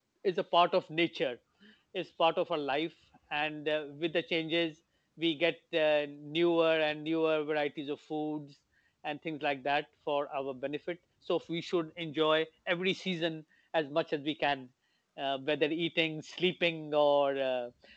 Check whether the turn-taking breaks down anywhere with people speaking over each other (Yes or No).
No